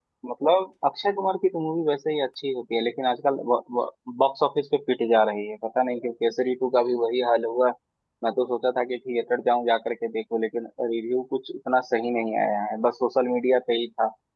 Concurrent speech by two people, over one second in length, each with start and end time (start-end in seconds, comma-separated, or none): none